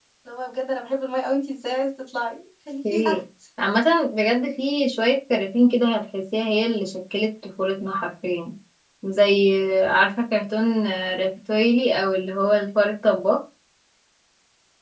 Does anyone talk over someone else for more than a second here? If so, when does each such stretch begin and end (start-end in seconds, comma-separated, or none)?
none